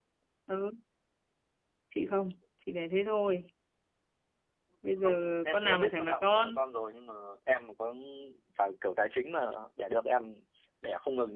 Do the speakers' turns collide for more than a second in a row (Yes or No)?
Yes